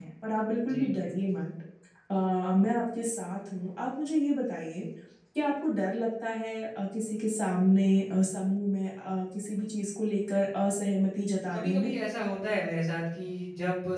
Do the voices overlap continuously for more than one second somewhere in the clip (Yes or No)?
No